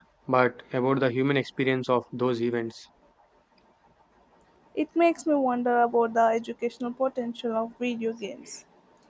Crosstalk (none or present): none